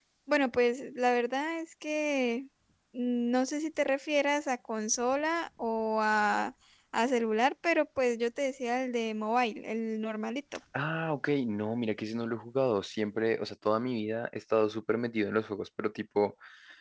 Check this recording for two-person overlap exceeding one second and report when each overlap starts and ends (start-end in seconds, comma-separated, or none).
none